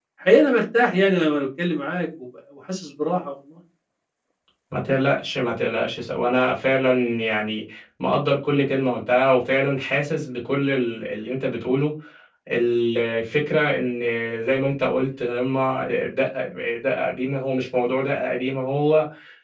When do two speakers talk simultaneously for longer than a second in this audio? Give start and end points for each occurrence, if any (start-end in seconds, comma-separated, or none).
none